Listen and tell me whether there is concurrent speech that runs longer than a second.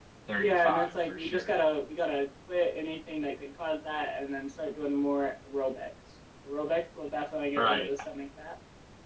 Yes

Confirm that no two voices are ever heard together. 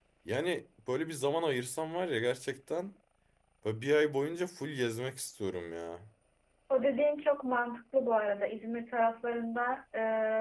Yes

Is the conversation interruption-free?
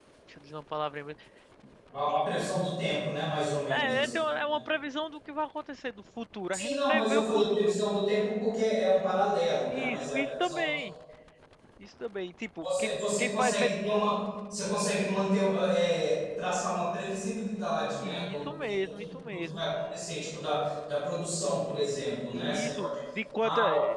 No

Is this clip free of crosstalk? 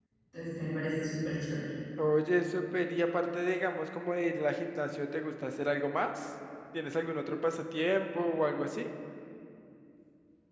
Yes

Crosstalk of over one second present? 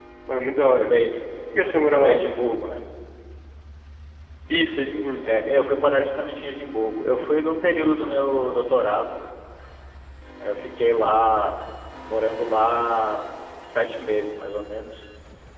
No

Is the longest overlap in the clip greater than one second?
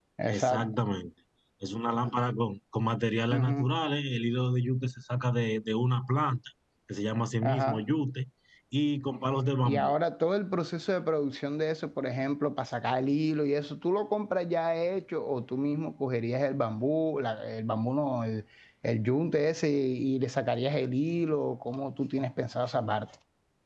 No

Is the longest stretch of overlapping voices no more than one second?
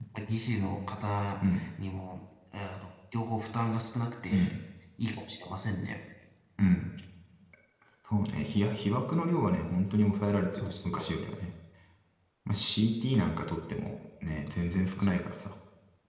Yes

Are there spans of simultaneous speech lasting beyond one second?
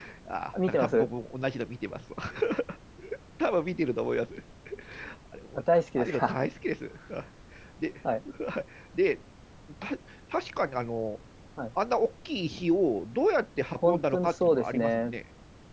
Yes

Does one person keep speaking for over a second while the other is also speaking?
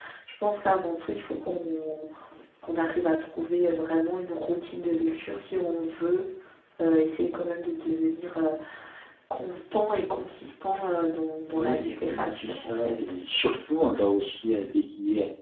Yes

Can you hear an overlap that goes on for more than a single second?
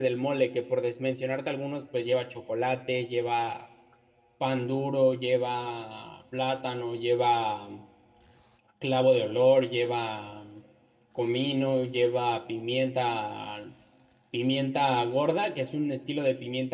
No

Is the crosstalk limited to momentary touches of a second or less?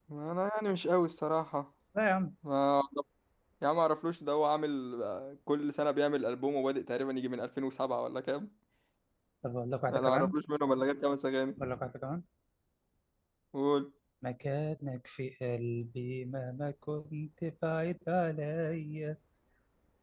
Yes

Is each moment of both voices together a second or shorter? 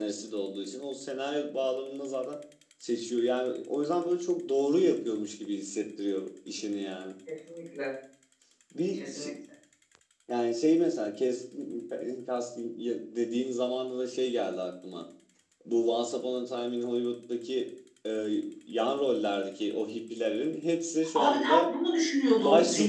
Yes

